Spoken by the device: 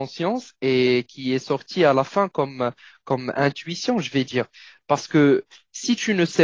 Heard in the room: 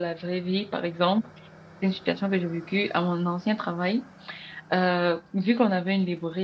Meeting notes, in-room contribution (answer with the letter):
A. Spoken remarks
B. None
A